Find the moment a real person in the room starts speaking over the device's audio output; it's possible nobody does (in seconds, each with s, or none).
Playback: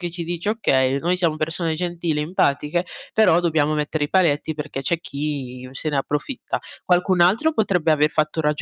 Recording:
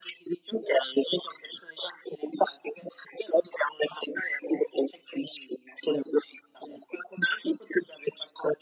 none